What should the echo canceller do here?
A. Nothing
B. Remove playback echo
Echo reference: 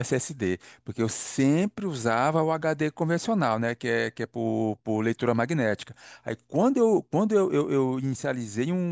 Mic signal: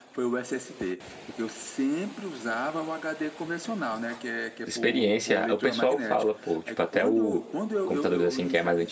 B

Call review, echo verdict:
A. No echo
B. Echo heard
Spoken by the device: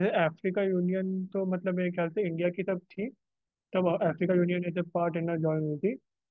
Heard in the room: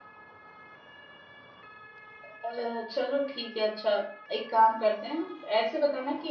A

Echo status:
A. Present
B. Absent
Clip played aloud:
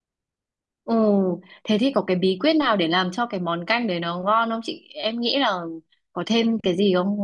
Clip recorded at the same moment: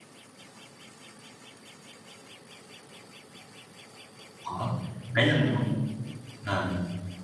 B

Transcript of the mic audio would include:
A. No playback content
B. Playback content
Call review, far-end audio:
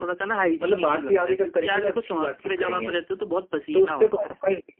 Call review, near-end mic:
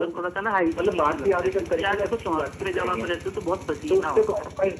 B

